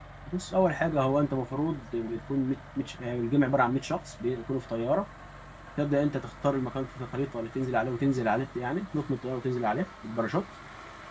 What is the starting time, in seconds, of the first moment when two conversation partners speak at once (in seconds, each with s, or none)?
none